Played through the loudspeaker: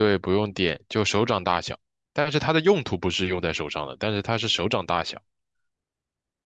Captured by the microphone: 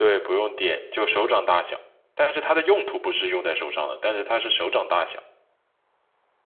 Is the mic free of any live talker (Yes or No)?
Yes